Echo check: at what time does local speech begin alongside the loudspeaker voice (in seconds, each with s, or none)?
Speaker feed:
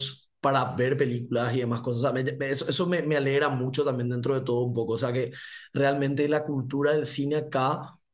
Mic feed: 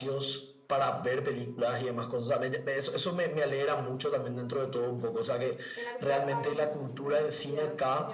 5.7 s